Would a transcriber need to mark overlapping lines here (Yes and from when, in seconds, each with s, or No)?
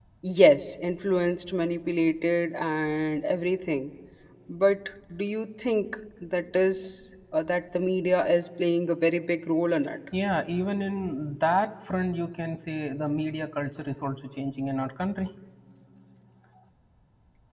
No